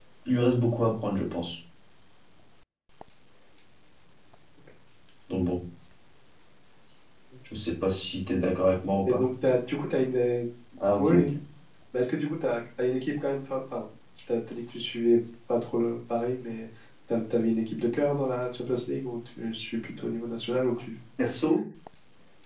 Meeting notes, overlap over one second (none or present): none